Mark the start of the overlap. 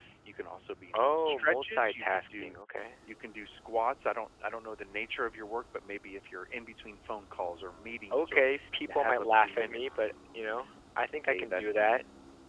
1 s

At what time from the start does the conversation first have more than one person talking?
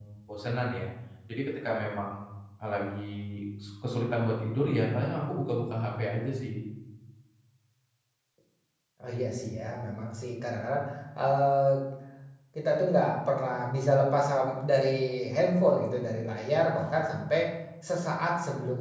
none

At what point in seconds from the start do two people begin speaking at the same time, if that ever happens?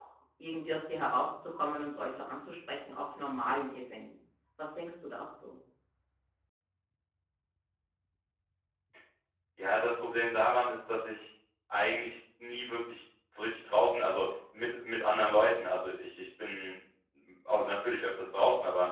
none

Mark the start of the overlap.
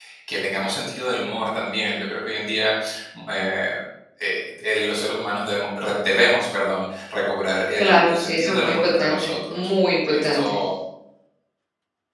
8 s

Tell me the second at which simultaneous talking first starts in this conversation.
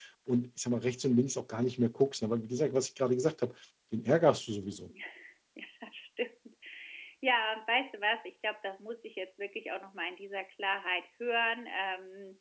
none

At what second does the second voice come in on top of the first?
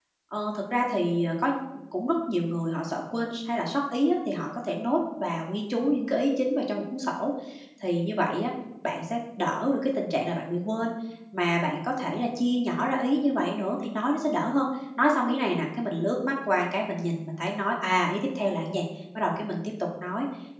none

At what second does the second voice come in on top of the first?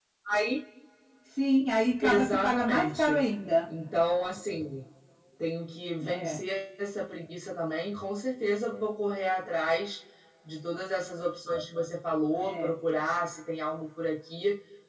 2 s

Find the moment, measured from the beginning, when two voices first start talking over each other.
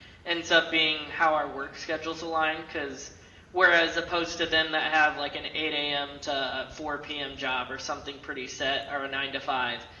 none

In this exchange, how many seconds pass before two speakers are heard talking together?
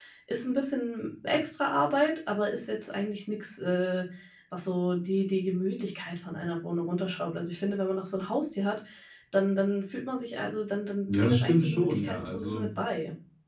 11 s

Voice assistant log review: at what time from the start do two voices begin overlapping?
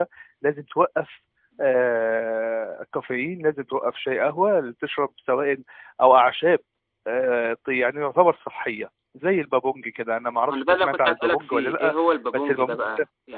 10 s

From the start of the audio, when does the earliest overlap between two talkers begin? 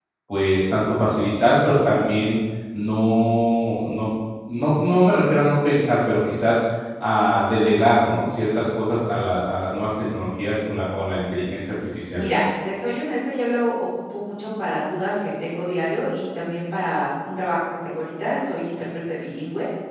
none

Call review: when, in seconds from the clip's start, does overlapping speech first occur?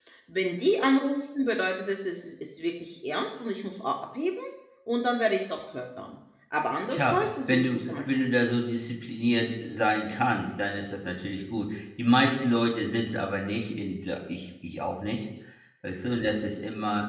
7 s

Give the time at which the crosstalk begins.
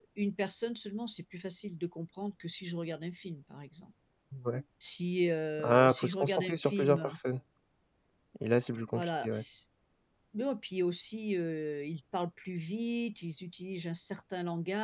6 s

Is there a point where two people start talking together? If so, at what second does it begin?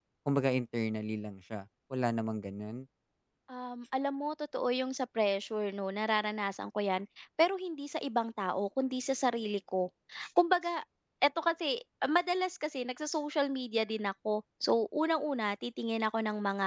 none

